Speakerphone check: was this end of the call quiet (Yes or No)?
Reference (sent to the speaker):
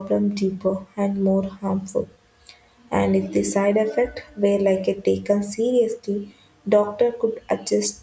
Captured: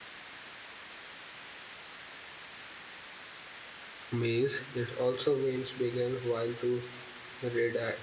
No